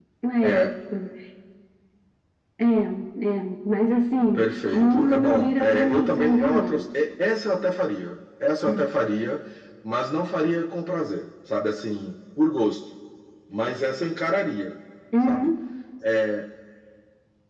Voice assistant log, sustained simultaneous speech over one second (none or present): present